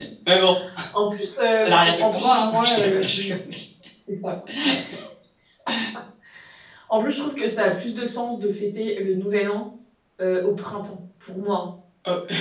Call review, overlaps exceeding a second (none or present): present